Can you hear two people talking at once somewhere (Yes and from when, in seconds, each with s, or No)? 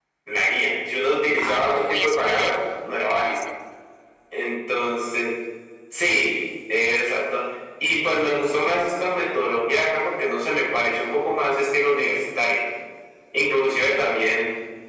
Yes, from 1.4 s